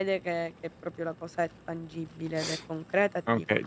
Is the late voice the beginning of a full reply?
Yes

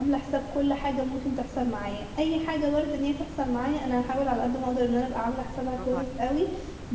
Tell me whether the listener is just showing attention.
Yes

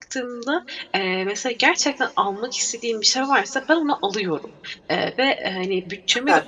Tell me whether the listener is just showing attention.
Yes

